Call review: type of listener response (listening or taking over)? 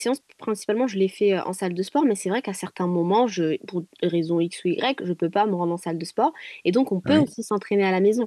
listening